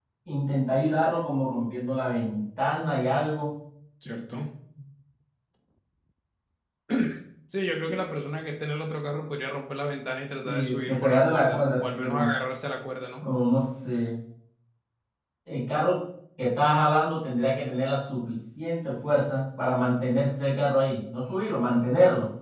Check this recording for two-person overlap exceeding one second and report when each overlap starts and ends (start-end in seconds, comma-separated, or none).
10.4-12.3